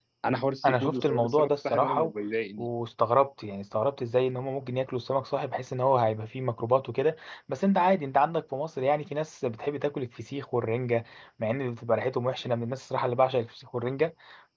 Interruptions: present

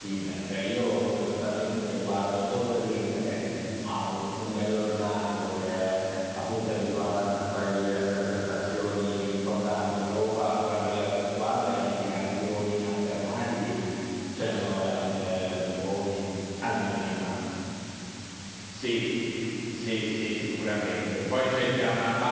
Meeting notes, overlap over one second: none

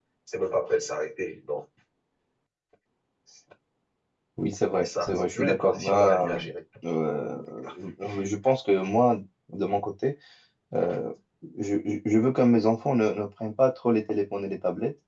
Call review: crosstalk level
present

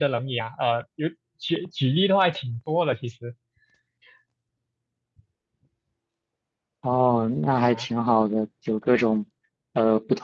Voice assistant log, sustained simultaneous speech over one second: none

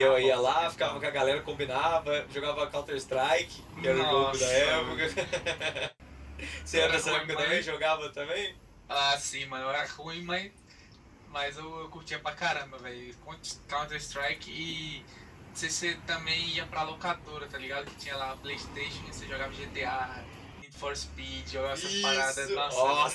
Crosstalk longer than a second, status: present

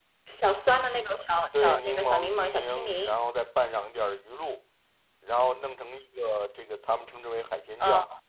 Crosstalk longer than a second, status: present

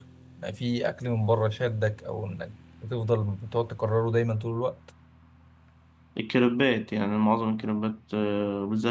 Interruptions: none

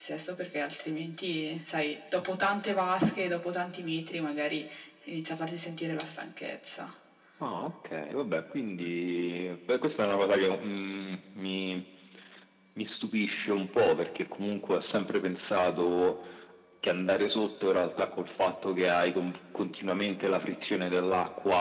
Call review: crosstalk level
none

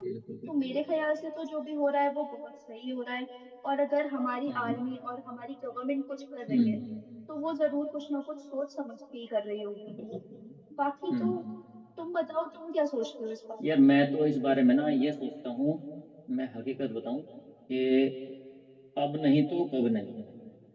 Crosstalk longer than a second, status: none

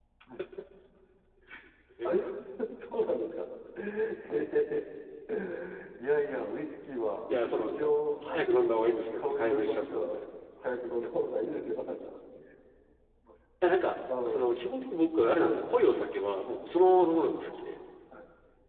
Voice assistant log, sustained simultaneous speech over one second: present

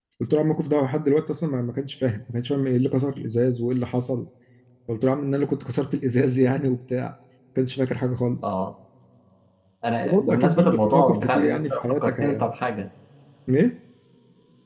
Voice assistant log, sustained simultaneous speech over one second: present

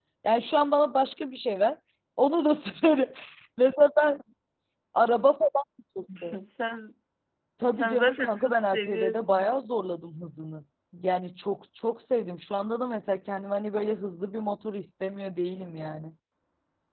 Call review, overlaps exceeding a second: present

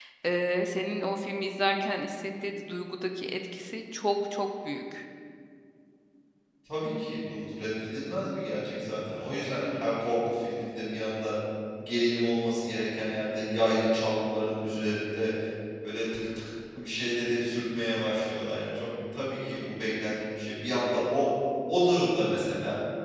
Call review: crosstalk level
none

